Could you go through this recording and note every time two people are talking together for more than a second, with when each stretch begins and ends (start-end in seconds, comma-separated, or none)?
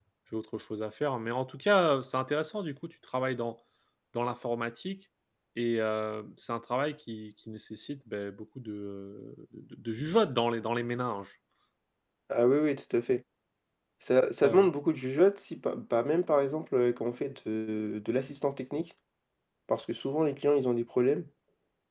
none